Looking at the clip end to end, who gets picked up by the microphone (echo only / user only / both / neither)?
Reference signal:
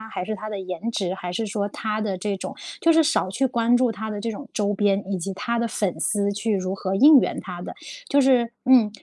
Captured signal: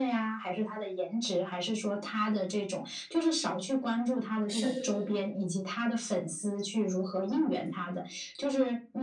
both